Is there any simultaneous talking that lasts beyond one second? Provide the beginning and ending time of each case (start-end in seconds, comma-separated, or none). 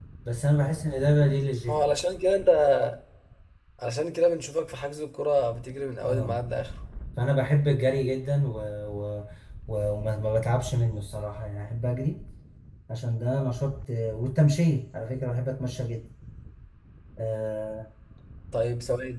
none